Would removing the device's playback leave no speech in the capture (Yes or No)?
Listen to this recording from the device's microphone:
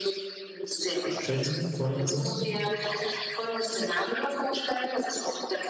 No